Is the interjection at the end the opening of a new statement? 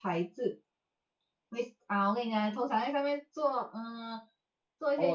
Yes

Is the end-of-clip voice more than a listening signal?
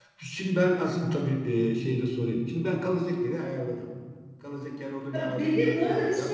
Yes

